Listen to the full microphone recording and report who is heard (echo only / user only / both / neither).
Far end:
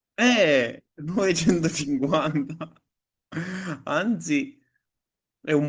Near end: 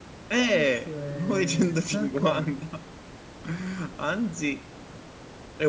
both